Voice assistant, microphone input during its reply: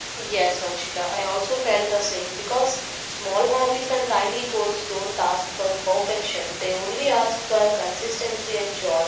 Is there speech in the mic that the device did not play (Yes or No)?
No